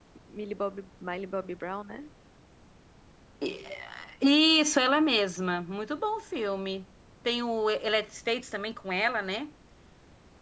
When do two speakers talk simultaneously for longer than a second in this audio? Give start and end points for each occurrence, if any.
none

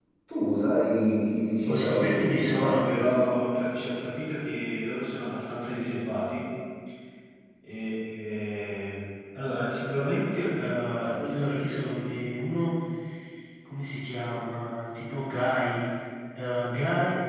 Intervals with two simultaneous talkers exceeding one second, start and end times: 1.7-3.0

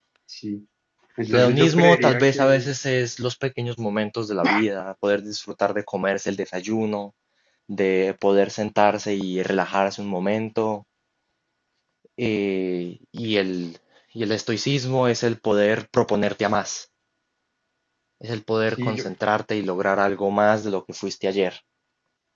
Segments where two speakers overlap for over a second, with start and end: 1.2-2.7

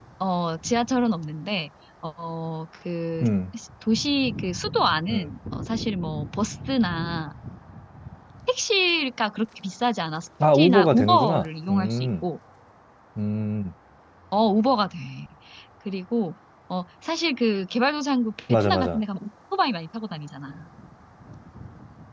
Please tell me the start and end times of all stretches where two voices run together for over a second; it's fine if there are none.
10.5-12.1

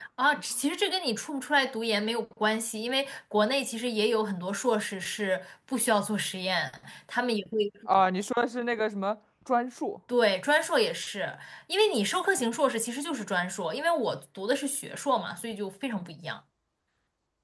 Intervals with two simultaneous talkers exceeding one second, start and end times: none

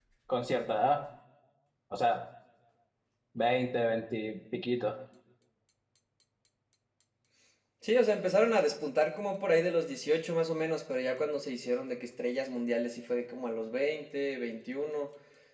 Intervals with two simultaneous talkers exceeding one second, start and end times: none

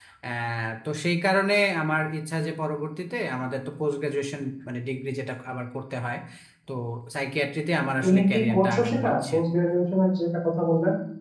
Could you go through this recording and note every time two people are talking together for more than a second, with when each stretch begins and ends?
8.0-9.3

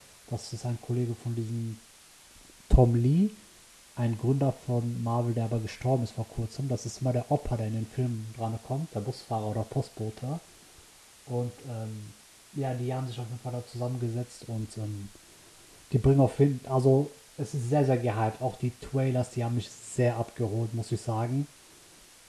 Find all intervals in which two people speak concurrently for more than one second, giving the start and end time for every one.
none

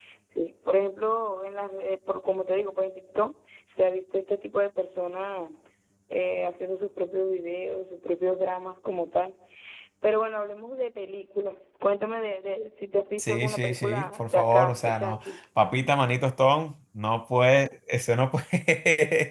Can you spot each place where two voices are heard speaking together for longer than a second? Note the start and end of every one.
13.2-15.3

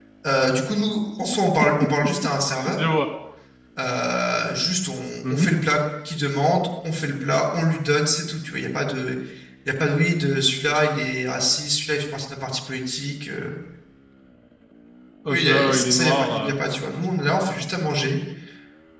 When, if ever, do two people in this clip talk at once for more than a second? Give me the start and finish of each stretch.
15.3-16.5

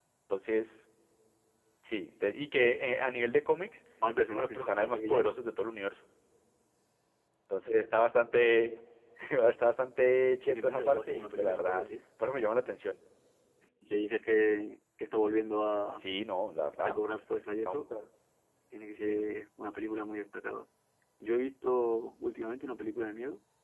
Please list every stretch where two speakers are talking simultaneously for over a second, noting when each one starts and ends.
4.2-5.4, 10.5-11.9

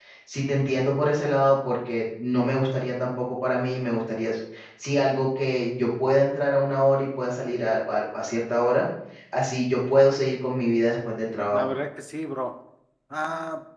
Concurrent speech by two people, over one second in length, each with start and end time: none

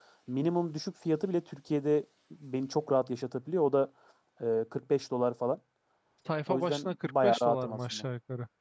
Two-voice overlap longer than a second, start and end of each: 6.5-8.0

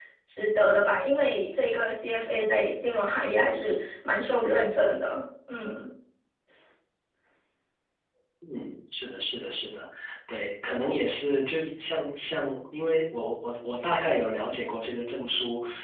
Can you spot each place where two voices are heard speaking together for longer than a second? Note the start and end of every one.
none

